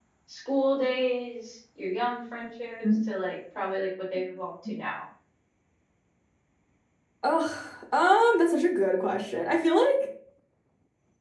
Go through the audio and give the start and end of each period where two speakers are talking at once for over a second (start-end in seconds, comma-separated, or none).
none